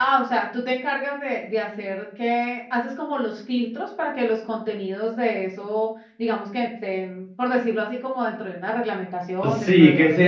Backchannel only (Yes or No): No